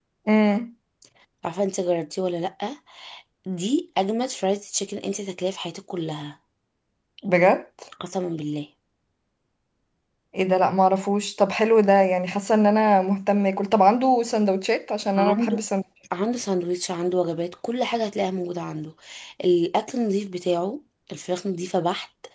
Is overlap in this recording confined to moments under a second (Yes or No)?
Yes